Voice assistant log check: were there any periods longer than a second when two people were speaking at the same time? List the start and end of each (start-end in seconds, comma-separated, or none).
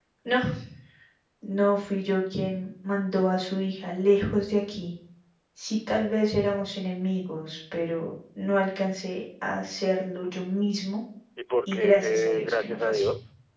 11.7-13.1